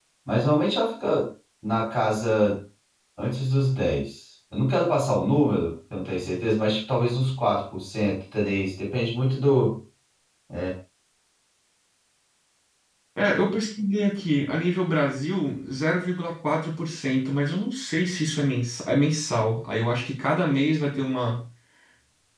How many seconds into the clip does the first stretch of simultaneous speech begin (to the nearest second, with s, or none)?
none